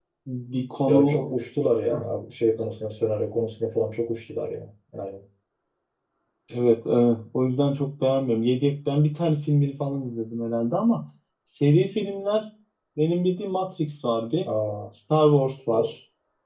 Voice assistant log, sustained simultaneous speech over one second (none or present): none